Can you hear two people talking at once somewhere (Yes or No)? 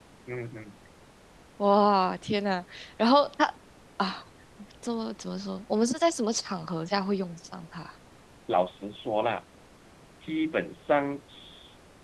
No